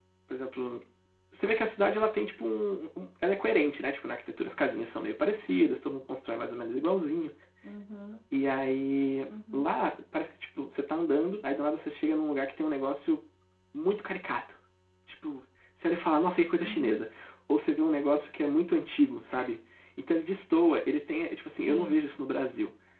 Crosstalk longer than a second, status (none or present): none